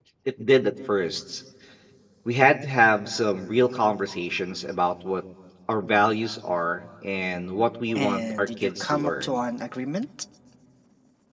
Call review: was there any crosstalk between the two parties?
Yes, from 8.0 s

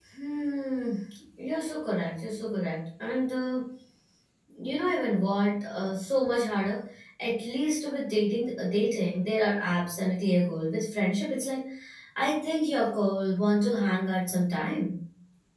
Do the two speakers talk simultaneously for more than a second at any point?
No

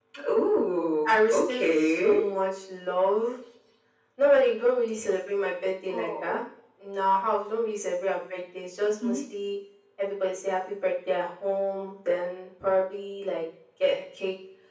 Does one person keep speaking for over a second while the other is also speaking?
Yes, from 1.0 s

